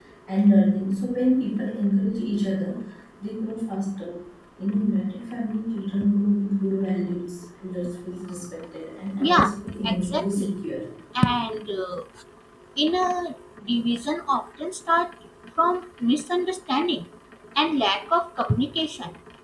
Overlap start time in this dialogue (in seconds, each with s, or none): 9.2 s